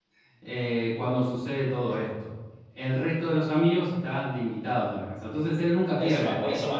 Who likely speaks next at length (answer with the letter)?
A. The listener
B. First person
A